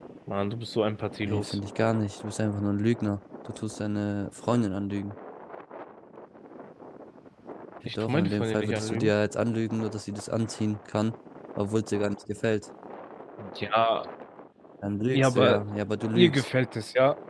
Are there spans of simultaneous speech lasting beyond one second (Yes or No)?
Yes